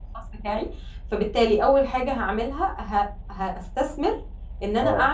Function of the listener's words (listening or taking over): listening